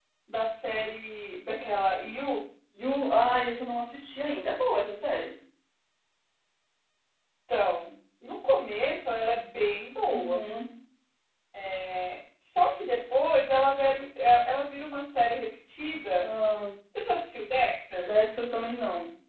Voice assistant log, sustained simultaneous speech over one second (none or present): none